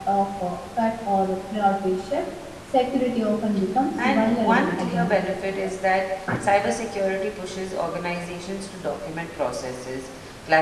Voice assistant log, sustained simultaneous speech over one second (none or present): present